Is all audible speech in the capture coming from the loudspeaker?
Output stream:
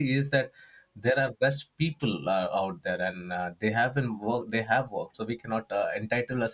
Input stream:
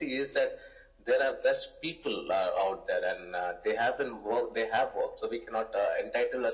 Yes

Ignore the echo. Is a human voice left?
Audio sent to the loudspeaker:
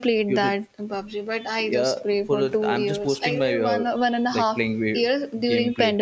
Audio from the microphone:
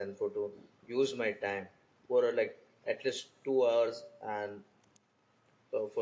Yes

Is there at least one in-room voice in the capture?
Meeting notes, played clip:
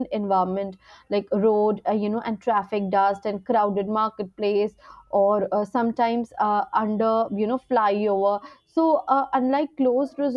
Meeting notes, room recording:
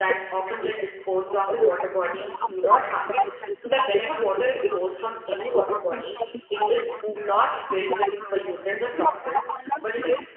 Yes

